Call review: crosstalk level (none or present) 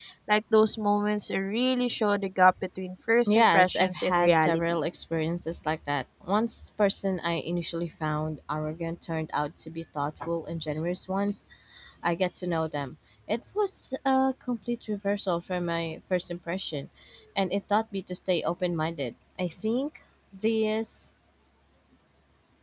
present